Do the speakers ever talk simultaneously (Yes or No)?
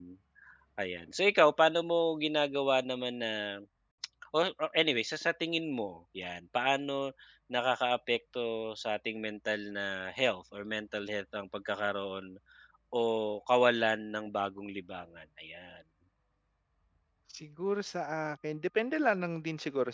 No